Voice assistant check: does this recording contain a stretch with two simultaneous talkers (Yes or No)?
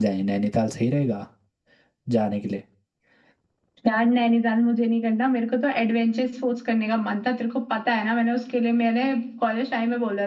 No